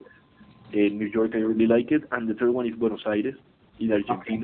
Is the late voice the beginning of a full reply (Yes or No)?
No